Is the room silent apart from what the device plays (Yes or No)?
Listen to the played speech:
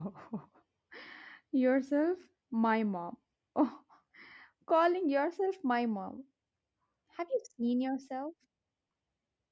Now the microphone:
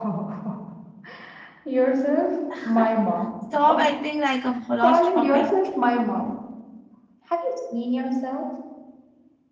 No